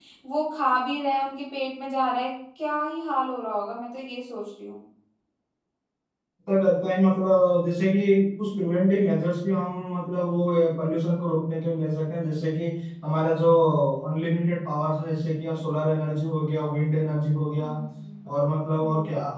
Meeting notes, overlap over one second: none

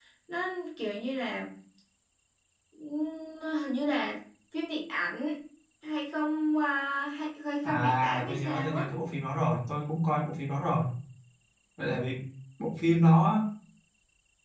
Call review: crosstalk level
present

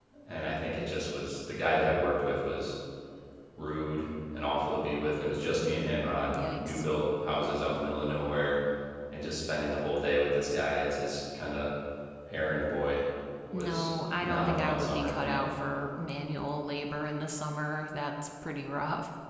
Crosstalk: present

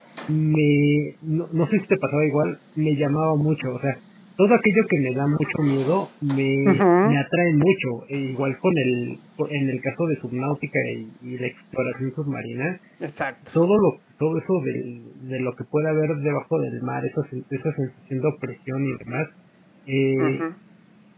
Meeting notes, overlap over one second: none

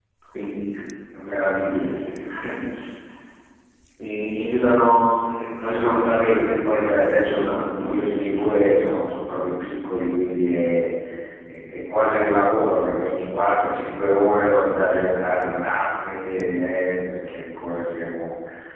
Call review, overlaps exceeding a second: present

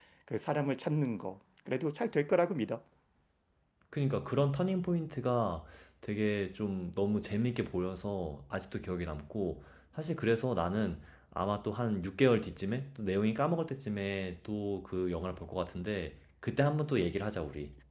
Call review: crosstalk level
none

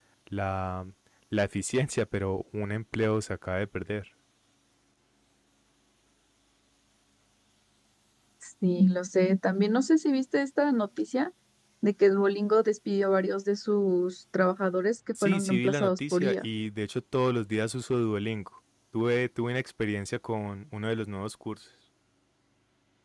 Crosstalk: present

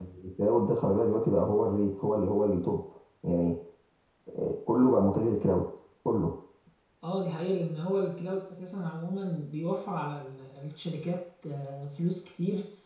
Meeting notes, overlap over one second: none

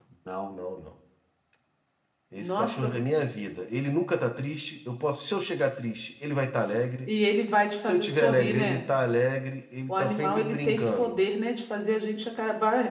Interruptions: present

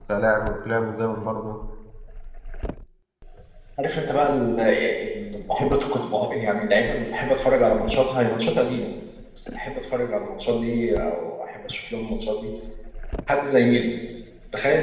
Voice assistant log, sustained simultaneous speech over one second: none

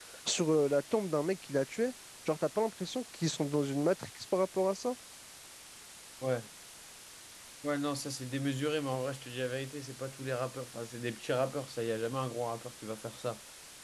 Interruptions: none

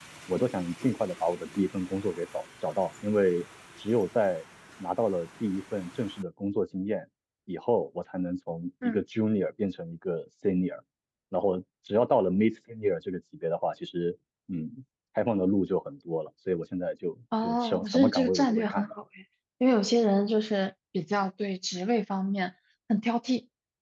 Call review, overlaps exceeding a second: present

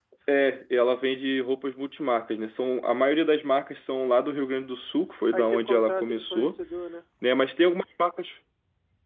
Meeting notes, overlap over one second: present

